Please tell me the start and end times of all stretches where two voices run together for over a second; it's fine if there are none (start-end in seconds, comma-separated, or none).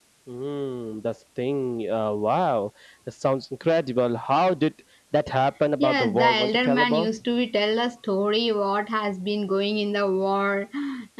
5.8-7.1